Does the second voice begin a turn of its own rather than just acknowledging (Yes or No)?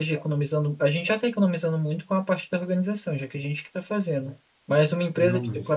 No